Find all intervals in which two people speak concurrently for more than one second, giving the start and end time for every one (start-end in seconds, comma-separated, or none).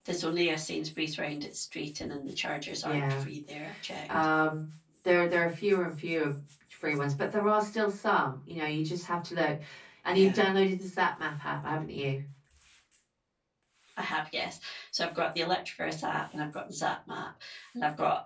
none